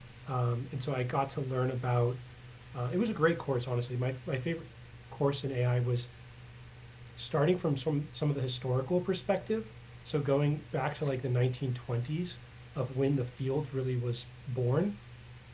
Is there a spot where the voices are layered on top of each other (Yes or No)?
No